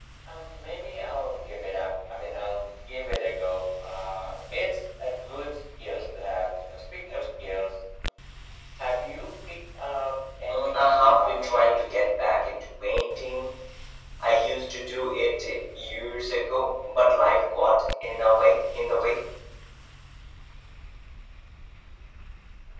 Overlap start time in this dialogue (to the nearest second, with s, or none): 10 s